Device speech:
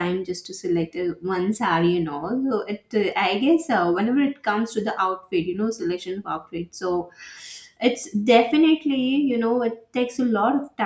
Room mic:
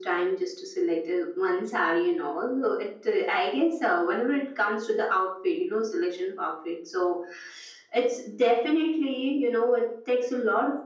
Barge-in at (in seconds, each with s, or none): none